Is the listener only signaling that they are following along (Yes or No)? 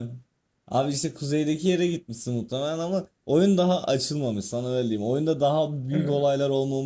Yes